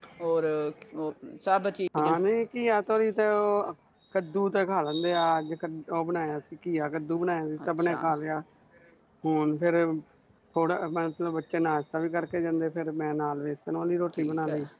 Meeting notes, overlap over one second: none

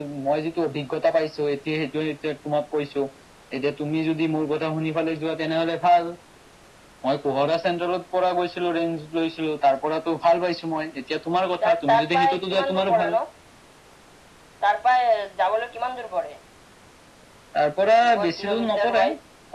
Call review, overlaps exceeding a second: present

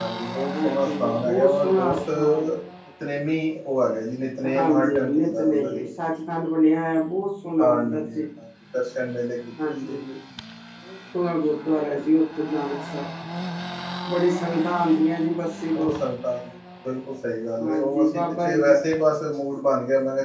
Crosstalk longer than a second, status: present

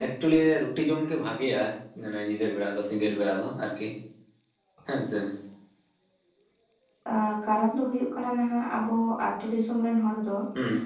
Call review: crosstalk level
none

